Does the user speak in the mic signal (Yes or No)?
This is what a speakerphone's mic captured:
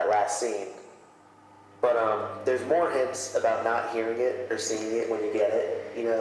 No